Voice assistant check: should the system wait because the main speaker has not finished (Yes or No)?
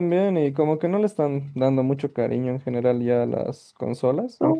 No